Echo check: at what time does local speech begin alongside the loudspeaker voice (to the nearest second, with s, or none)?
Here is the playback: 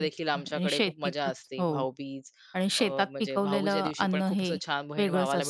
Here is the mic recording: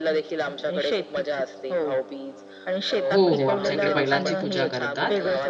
3 s